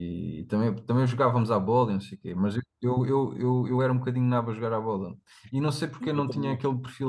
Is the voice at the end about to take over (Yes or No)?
No